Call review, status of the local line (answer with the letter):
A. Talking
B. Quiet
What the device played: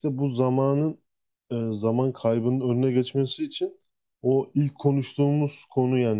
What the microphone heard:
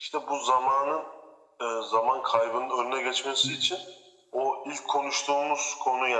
A